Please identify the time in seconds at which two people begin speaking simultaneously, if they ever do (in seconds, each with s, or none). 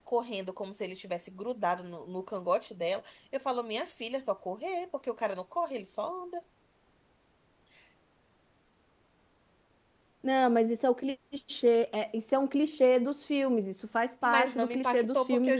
14.2 s